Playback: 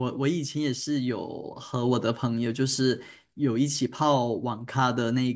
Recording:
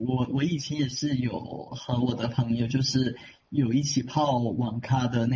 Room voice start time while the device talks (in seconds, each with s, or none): none